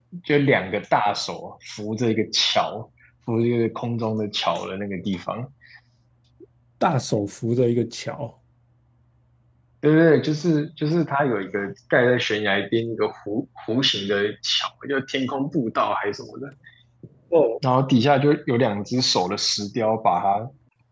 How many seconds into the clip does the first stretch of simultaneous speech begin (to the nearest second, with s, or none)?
none